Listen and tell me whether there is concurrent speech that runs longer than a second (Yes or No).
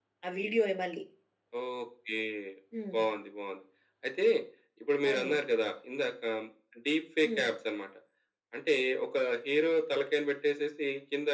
No